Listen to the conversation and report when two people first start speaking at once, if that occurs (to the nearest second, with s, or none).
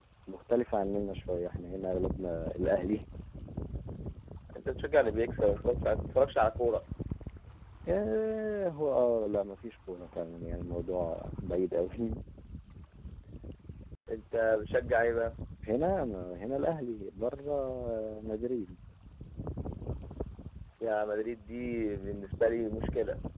none